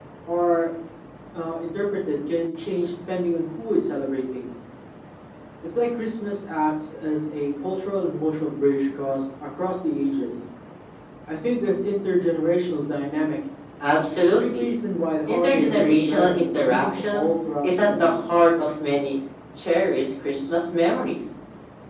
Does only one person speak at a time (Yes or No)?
No